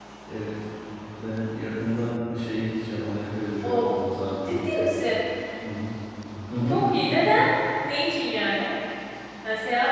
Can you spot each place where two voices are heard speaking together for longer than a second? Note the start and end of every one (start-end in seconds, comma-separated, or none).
none